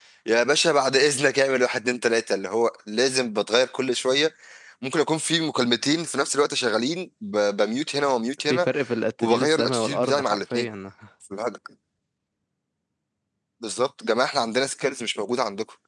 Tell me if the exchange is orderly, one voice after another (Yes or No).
No